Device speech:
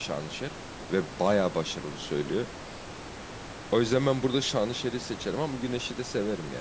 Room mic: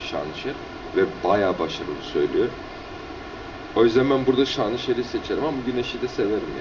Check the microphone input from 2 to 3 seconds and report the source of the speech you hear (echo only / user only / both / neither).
echo only